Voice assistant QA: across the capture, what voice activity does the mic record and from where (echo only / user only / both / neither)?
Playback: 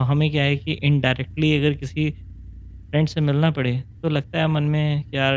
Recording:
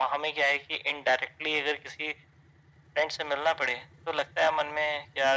echo only